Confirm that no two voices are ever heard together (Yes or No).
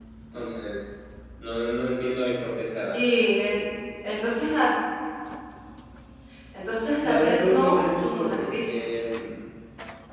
No